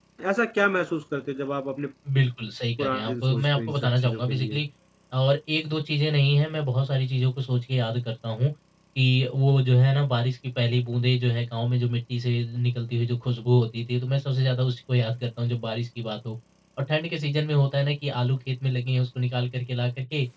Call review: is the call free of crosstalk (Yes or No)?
No